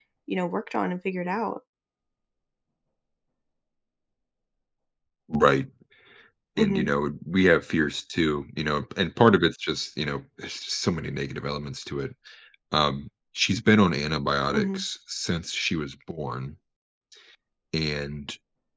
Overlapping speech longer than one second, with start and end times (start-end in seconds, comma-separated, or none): none